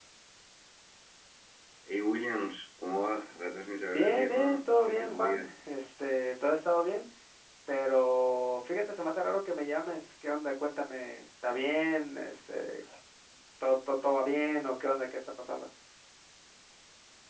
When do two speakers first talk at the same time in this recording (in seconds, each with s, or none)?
3.9 s